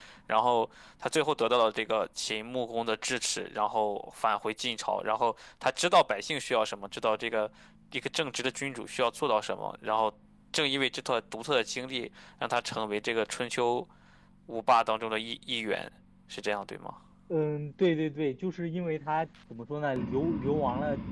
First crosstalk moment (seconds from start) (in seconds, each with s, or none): none